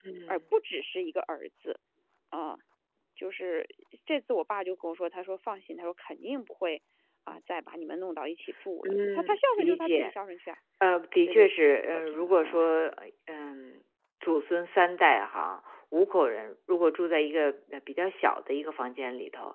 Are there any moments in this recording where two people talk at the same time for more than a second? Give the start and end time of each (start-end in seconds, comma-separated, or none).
8.8-10.1, 11.2-12.7